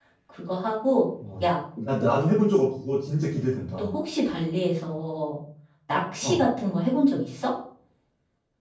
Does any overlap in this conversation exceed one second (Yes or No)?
No